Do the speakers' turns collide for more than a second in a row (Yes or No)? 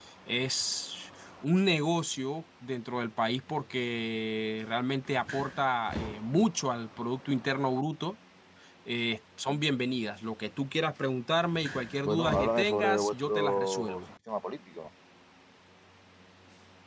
Yes